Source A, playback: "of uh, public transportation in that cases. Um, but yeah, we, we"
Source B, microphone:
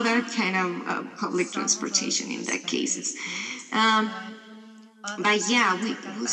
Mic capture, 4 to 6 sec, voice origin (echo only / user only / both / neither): both